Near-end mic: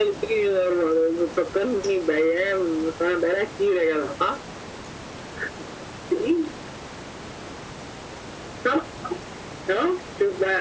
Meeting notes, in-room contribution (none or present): none